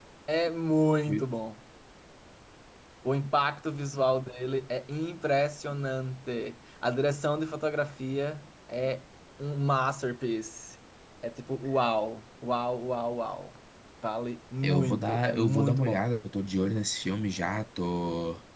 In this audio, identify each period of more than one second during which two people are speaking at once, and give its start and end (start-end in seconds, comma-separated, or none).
14.6-16.0